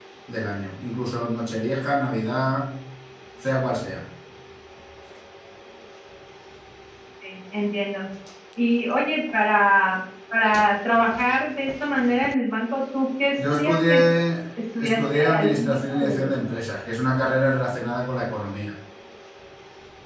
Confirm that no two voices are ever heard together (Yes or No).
No